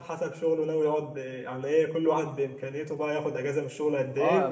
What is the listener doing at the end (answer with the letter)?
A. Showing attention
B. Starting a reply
B